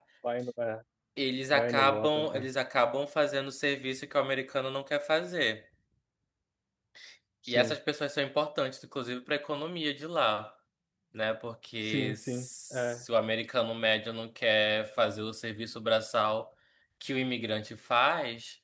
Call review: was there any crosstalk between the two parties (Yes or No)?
Yes